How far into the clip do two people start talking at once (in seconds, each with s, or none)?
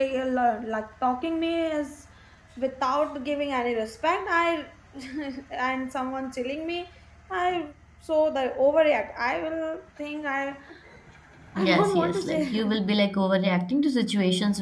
11.6 s